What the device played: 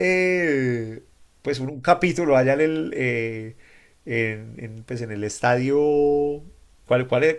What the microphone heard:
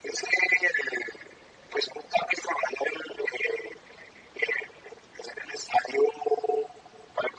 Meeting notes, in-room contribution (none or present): none